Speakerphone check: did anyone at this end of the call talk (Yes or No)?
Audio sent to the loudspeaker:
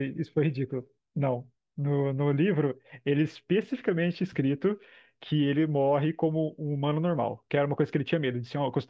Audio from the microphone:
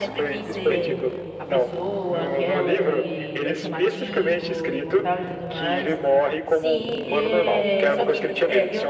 Yes